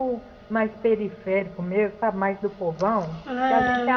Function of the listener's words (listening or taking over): listening